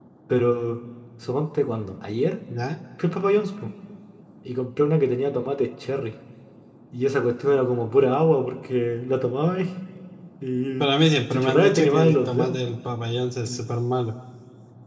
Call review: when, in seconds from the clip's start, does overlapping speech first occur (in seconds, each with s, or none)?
11.3 s